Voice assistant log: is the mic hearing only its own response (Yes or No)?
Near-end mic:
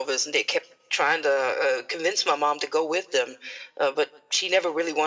Yes